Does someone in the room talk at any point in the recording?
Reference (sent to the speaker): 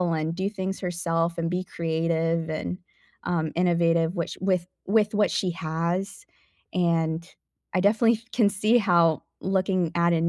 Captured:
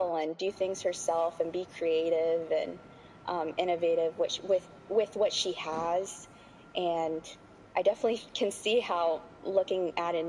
No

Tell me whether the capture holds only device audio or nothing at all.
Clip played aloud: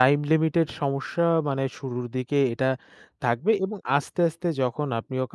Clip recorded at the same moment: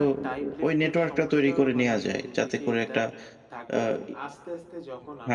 No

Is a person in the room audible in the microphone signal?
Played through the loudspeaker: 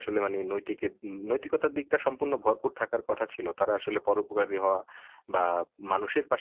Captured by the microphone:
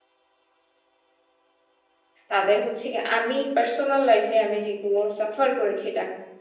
Yes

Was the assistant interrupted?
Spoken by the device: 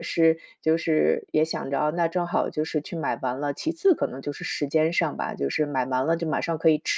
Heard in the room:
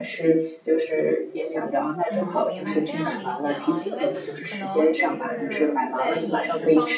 Yes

